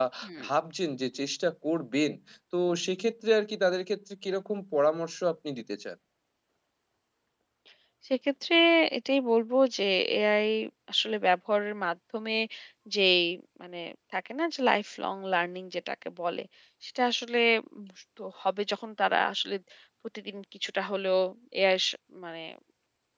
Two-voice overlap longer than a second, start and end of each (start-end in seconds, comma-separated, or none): none